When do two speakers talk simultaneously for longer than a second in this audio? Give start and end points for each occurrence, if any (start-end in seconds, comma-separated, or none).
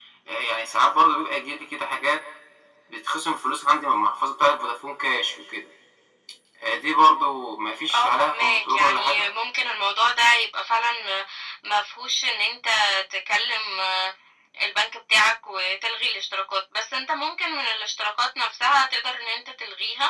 7.9-9.2